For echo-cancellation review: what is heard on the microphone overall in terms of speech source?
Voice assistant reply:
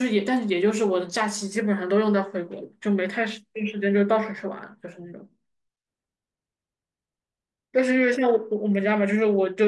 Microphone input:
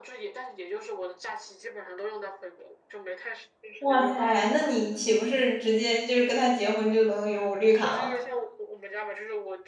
both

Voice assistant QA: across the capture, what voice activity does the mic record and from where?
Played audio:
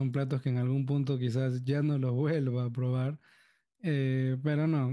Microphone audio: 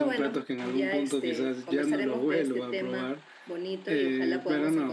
both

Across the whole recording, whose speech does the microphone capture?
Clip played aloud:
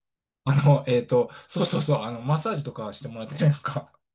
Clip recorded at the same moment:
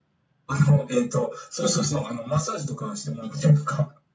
echo only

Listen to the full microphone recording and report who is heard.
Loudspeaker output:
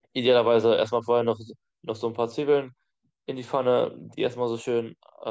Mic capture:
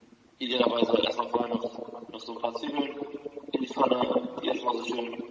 echo only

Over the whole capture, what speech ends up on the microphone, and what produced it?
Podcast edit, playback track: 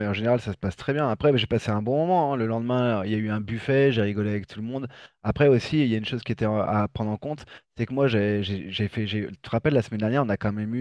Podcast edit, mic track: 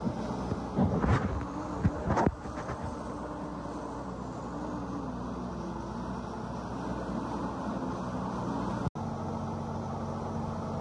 neither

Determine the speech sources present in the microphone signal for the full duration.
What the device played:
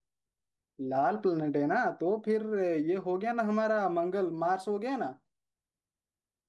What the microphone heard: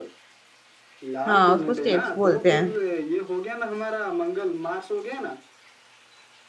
both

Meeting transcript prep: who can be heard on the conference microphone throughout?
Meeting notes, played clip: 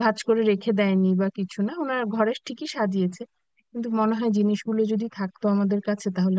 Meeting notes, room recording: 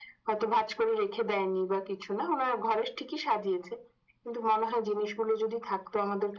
echo only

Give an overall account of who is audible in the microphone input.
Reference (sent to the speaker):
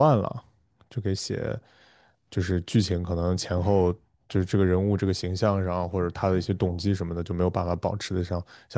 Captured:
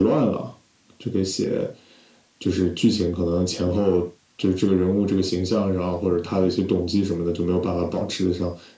echo only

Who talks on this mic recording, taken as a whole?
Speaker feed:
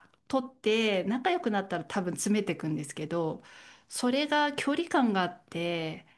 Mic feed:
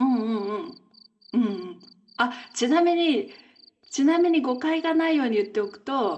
user only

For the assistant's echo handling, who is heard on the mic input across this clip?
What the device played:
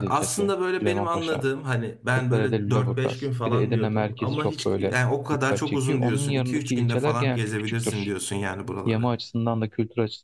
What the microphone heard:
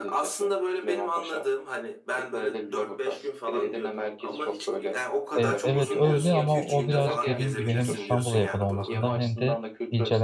both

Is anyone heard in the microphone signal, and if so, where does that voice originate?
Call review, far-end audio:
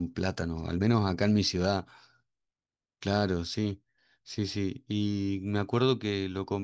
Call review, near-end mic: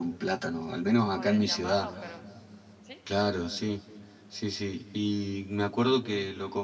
both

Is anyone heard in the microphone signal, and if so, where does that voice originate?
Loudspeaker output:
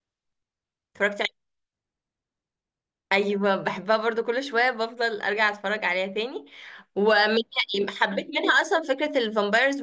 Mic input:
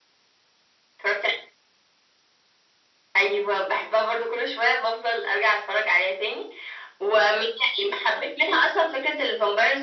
echo only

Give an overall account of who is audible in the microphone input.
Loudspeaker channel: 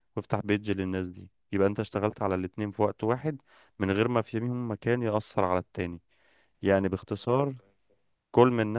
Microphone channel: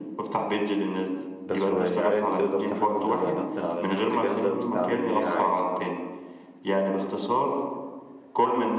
both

